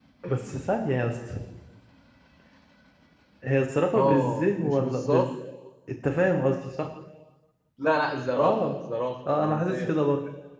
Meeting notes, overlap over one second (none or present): present